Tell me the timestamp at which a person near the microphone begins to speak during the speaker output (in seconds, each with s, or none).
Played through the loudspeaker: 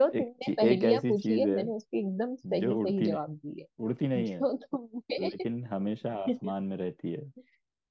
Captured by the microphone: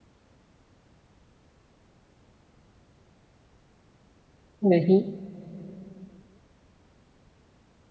4.7 s